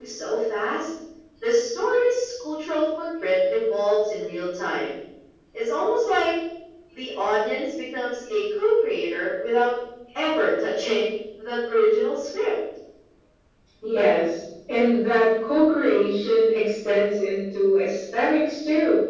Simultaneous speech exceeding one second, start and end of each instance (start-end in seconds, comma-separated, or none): none